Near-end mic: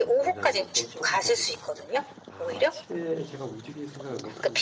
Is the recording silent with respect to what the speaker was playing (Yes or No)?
No